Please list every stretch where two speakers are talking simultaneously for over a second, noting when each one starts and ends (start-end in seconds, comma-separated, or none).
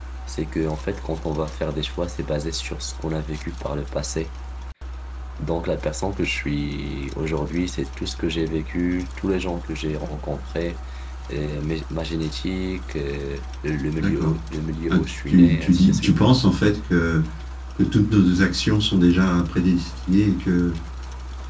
14.9-16.1